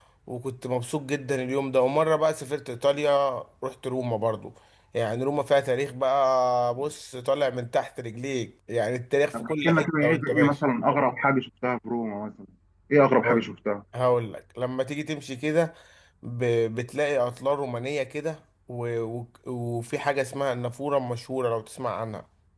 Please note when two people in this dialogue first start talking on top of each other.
9.3 s

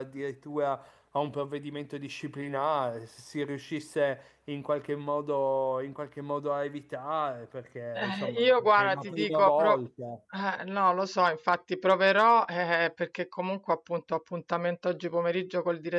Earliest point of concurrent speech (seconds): 8.0 s

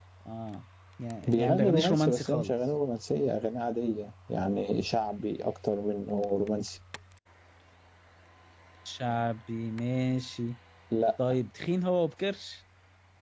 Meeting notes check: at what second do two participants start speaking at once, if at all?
1.3 s

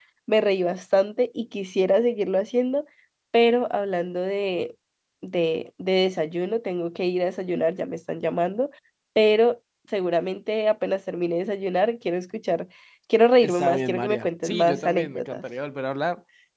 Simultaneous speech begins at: 13.4 s

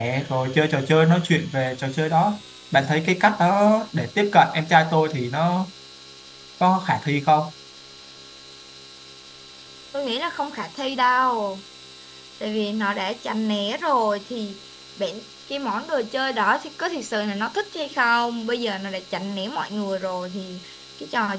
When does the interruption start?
none

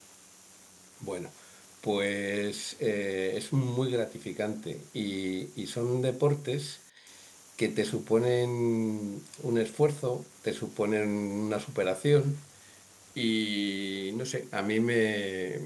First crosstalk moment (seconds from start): none

